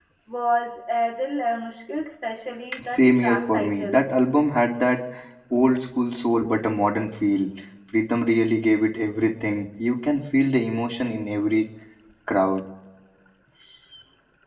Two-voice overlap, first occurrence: 3 s

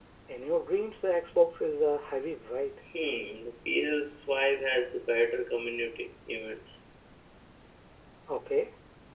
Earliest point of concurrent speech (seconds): none

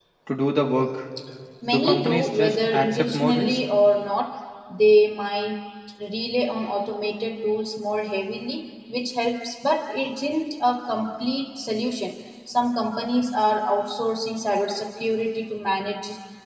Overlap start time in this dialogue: 2 s

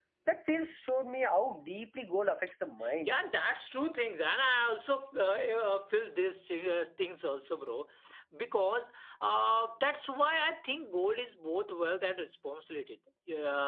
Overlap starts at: none

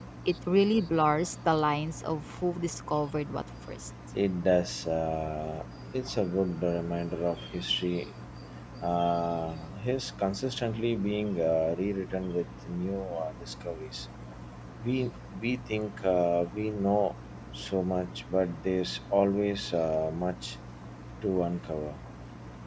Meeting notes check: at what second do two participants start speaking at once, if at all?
none

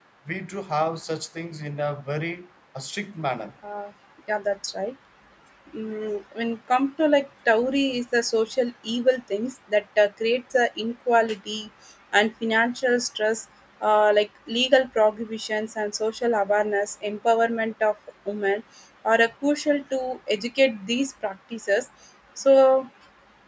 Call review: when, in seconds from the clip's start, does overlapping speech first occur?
none

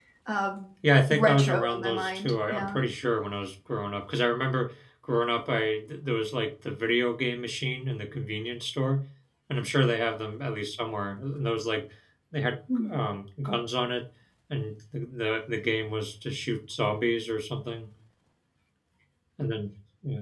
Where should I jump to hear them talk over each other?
1 s

